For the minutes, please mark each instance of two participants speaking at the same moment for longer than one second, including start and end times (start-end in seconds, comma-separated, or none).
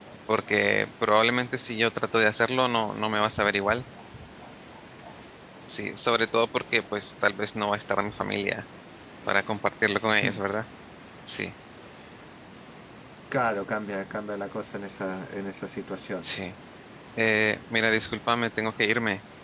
none